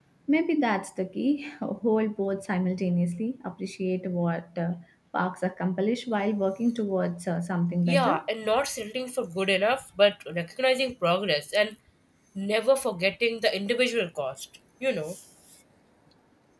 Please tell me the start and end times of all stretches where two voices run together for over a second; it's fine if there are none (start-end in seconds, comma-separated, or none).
none